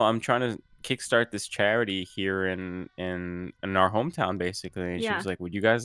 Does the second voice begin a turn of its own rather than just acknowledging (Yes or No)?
No